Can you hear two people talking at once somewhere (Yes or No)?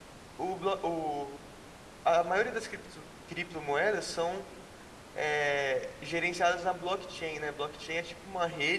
No